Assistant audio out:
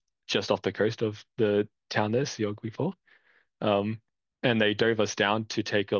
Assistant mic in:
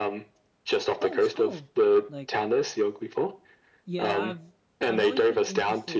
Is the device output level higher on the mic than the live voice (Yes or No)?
Yes